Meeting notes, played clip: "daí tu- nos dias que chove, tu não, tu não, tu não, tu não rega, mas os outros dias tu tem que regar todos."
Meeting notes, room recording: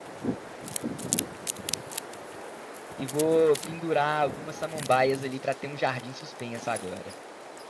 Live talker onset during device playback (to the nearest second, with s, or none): 3 s